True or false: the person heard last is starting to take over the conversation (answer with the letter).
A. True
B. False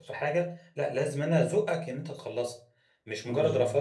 B